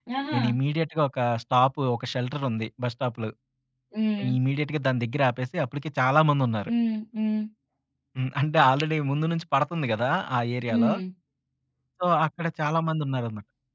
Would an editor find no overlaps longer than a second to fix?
Yes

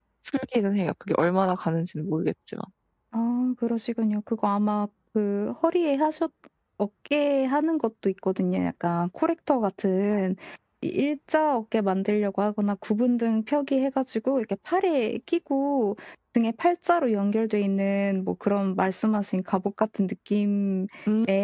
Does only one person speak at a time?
Yes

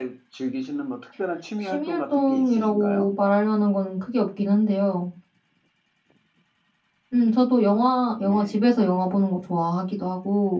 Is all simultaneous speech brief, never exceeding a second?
No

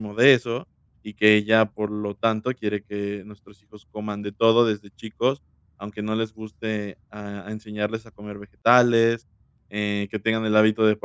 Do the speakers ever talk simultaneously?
No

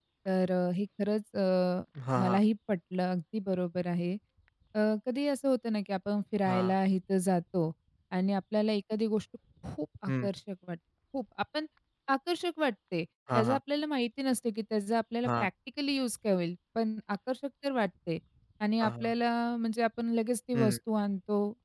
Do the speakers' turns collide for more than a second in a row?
No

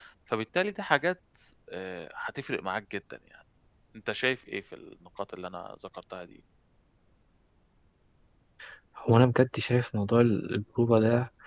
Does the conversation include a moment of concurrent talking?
No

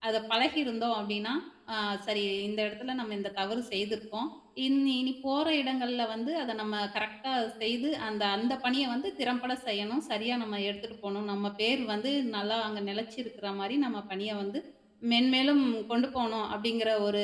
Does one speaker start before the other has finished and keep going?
No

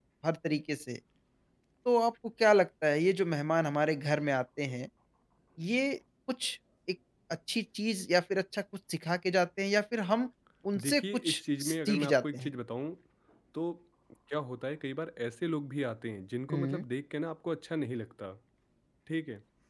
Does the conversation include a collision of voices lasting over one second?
Yes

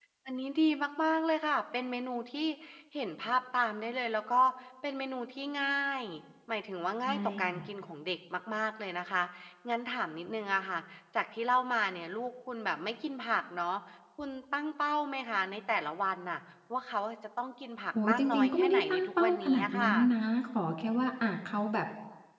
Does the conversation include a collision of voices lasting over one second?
Yes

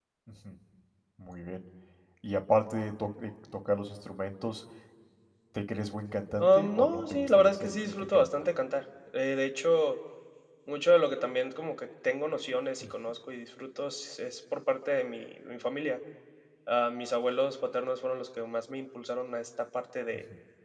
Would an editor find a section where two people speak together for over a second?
Yes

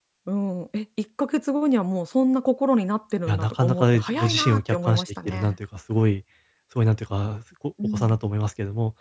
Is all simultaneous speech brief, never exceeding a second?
No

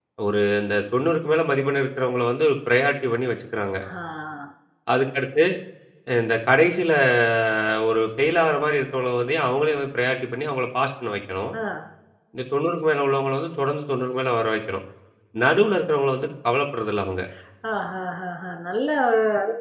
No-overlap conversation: Yes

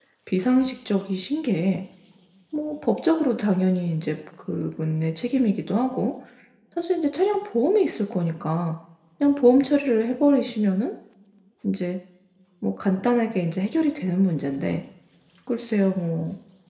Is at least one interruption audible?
No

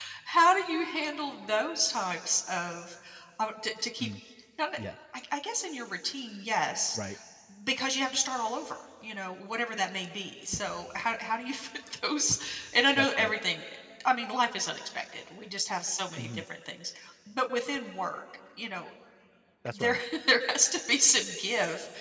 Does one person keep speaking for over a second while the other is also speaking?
No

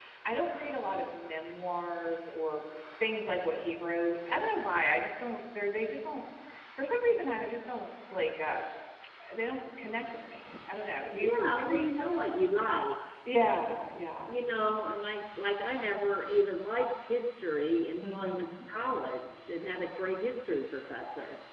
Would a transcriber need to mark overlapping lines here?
Yes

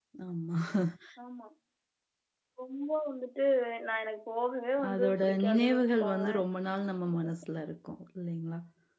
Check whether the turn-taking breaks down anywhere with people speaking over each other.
Yes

